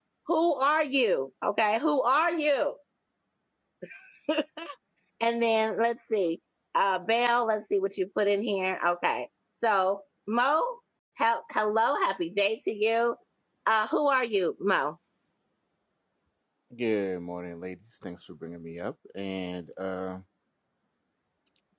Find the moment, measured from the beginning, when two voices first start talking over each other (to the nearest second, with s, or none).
none